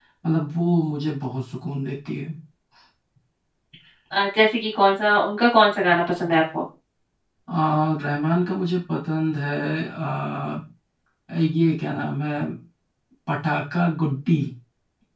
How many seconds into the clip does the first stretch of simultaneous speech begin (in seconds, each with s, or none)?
none